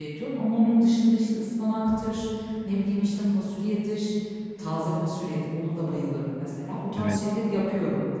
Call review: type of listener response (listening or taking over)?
listening